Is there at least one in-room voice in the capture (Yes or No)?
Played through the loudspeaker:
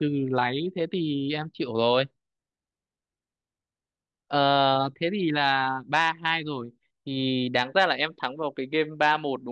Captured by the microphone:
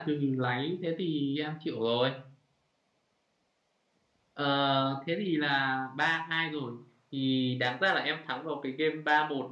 No